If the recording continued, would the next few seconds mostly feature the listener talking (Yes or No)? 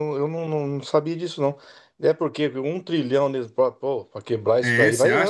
Yes